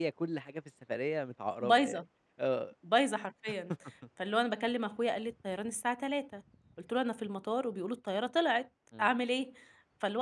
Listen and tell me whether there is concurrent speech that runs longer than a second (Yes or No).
No